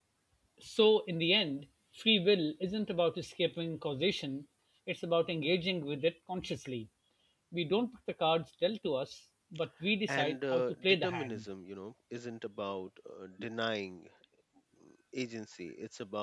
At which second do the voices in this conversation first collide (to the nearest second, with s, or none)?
10 s